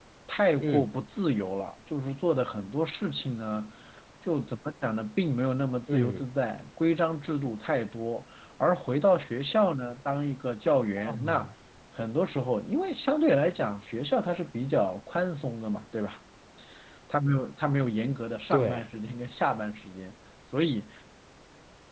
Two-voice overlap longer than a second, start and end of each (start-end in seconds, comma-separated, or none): none